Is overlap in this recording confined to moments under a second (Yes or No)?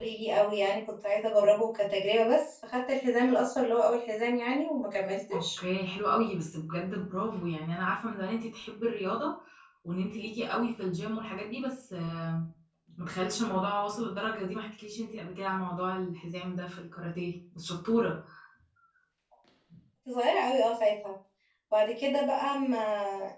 Yes